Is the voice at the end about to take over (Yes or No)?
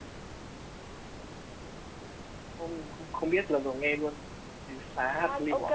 Yes